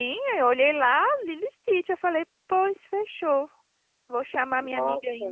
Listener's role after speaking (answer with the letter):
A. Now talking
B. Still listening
B